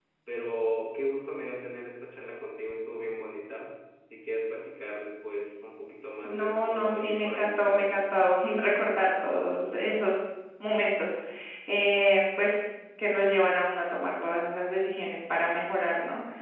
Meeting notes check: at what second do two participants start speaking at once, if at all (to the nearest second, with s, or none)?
6 s